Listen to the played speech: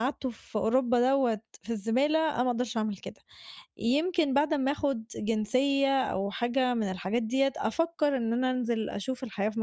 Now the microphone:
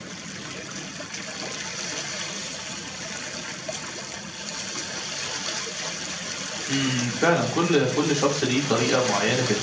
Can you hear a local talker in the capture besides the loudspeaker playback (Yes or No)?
Yes